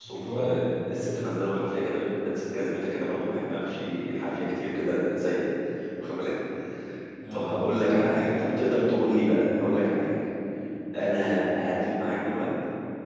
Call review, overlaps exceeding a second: present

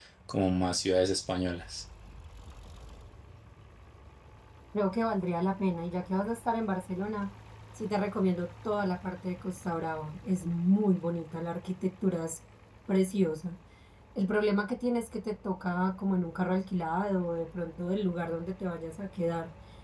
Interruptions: none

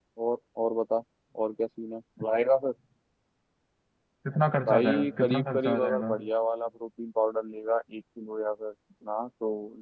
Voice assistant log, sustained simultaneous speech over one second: present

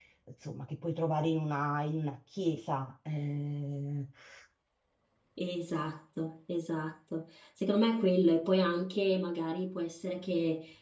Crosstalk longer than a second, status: none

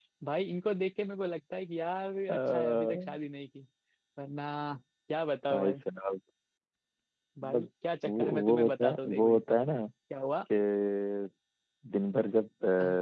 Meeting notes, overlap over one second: present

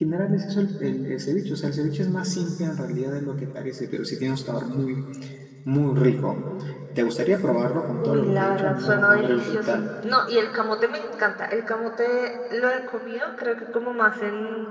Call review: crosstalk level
present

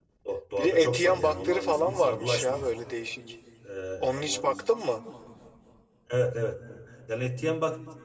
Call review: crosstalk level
present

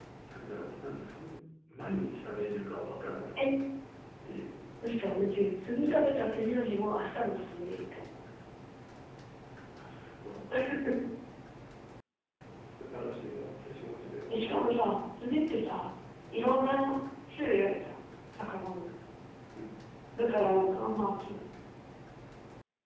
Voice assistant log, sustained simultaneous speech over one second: none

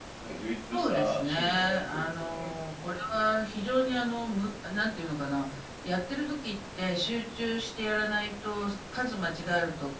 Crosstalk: present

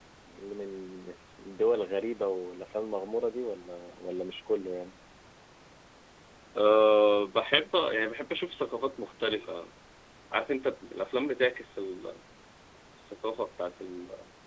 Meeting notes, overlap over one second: none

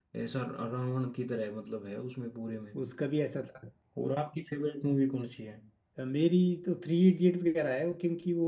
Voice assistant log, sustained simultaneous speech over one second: none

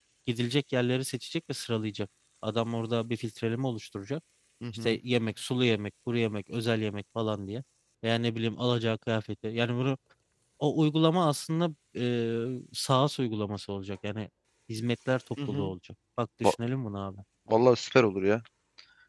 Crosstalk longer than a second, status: none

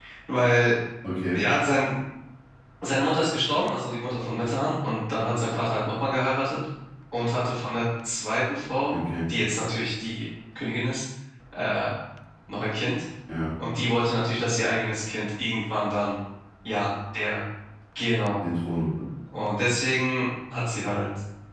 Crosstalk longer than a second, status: none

